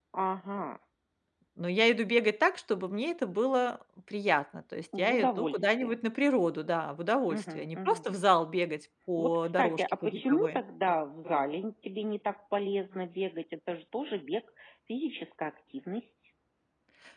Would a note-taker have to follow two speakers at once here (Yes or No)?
Yes